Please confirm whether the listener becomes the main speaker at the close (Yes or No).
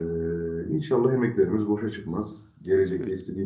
No